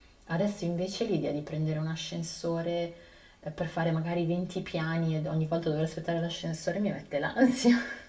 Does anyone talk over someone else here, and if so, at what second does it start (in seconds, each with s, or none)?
none